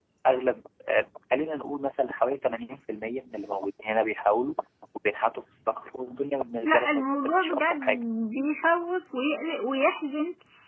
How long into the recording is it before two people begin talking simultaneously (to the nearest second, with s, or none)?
7 s